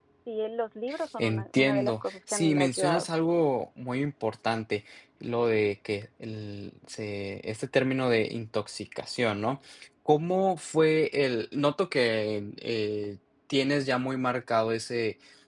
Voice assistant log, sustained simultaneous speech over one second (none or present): present